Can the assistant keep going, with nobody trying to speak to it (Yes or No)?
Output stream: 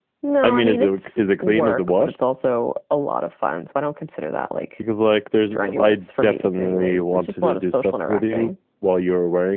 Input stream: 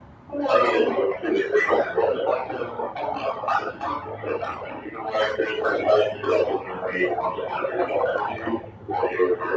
Yes